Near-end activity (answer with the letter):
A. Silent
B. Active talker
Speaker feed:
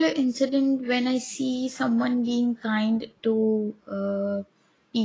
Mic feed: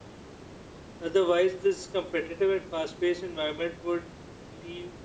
B